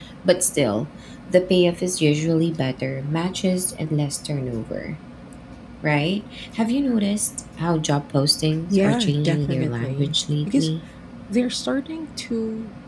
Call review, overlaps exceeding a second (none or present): present